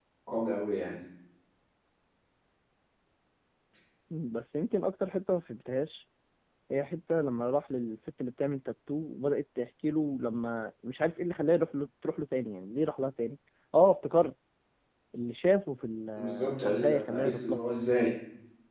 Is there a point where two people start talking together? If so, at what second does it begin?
16 s

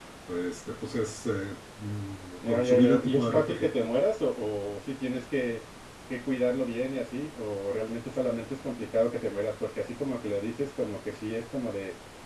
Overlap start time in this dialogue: 2 s

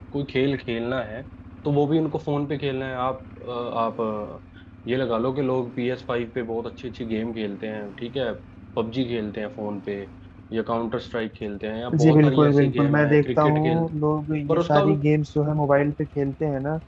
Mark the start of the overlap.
12 s

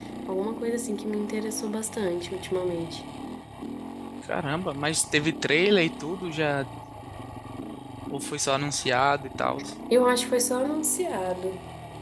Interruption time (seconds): none

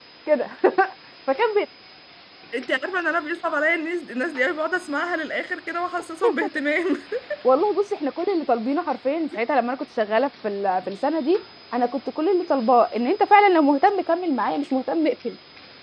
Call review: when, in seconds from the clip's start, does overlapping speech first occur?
none

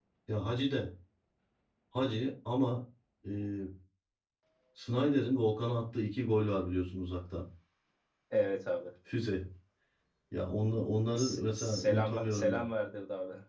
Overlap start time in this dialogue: 11 s

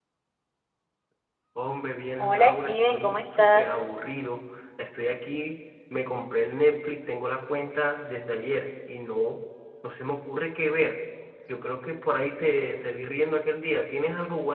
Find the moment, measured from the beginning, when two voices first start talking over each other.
2 s

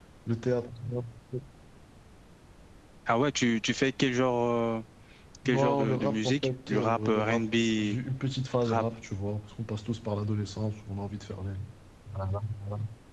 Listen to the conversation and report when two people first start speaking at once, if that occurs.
5 s

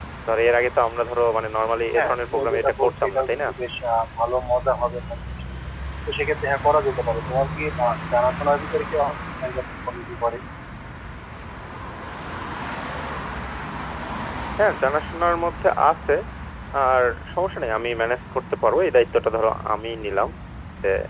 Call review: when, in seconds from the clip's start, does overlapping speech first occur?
2 s

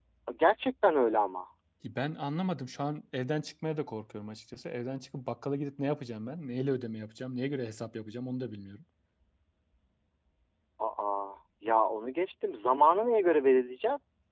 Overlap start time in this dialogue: none

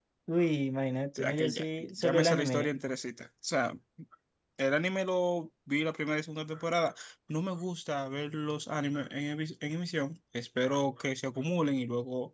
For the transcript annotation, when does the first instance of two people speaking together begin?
1 s

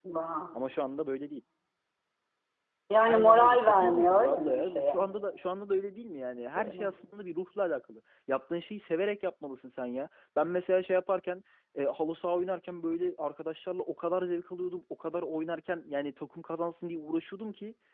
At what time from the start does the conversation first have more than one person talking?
3 s

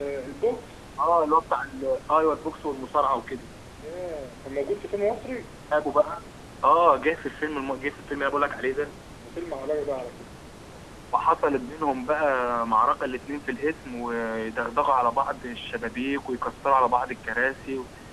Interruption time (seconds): none

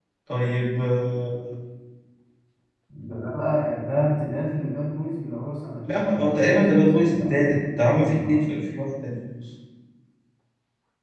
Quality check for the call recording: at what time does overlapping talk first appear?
6 s

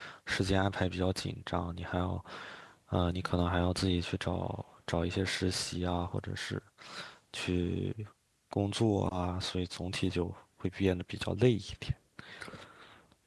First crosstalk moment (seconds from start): none

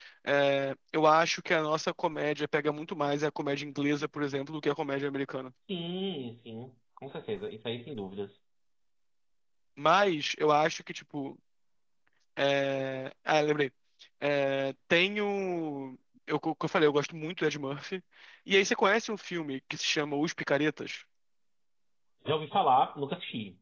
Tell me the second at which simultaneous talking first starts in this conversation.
none

